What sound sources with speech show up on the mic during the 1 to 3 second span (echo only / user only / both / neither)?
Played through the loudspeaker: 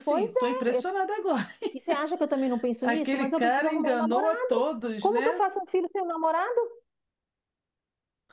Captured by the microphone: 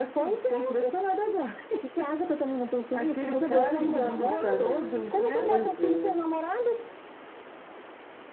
echo only